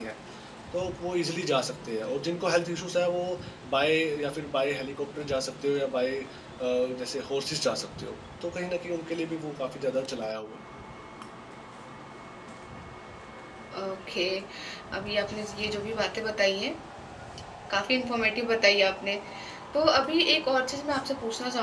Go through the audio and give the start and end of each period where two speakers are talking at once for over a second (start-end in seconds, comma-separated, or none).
none